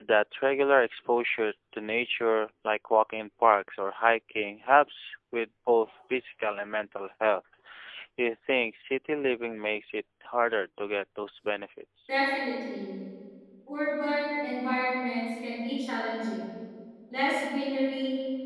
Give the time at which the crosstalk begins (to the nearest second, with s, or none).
none